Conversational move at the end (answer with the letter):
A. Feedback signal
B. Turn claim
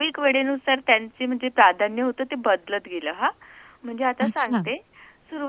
A